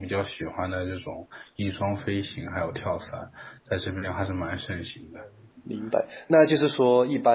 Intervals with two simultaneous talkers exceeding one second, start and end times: none

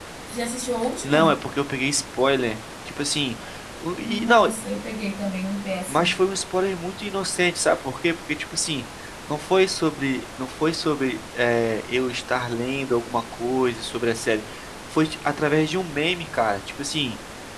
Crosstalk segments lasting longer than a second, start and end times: none

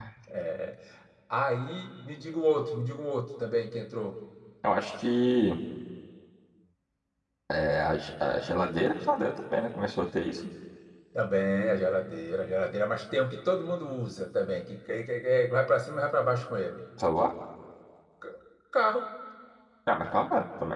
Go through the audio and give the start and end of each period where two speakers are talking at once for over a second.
none

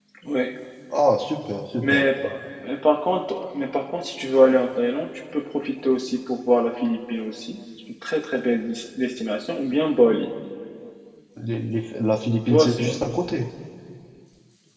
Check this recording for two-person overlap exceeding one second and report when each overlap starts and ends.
none

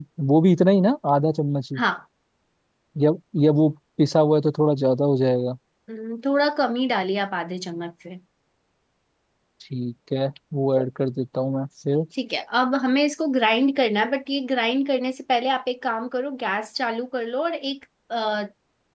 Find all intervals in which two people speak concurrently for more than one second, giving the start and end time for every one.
none

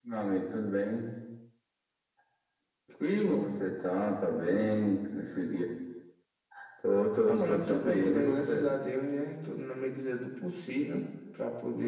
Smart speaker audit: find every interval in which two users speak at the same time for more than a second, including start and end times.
7.2-8.7

